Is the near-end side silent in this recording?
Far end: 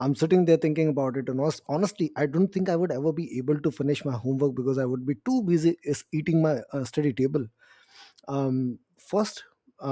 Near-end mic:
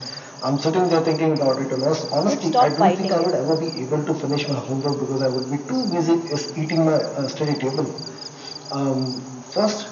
No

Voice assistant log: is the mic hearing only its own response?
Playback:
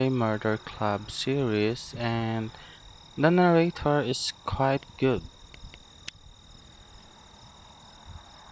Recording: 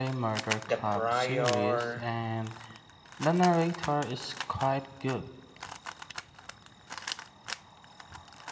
No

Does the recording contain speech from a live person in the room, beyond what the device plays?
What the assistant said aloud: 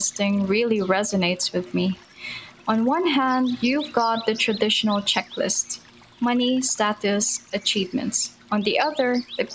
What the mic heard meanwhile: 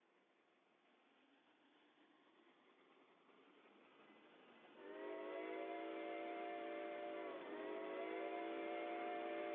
No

